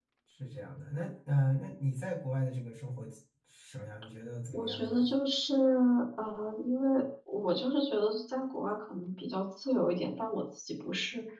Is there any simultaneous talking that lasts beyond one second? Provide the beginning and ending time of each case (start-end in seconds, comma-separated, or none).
none